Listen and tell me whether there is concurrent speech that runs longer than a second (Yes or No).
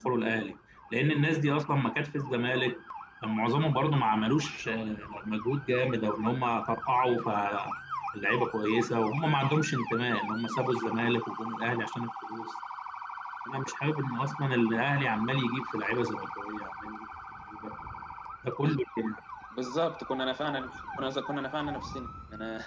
No